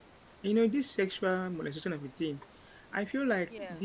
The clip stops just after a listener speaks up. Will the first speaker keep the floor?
Yes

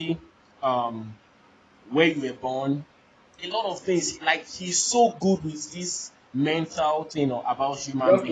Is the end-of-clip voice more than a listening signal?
Yes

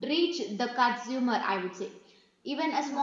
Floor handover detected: No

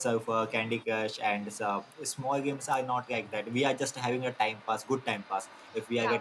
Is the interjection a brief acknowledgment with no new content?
No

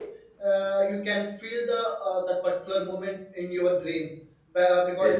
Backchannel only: Yes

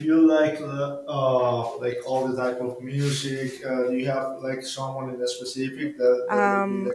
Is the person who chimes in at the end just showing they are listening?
No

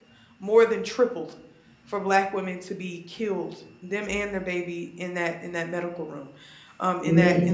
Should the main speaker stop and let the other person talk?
No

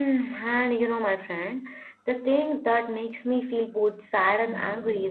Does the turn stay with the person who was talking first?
Yes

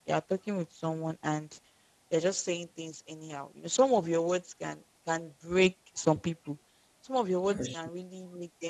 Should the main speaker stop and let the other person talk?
No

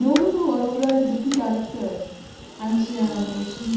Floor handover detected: No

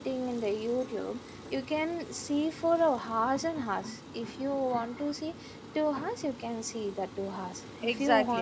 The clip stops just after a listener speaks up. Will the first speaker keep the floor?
No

